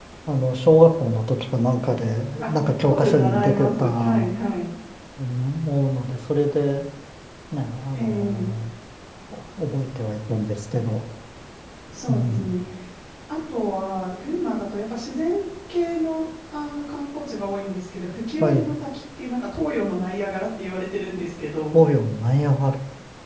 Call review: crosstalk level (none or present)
present